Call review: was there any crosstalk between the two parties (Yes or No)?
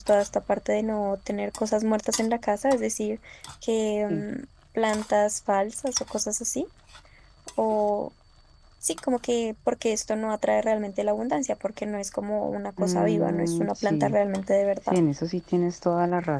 Yes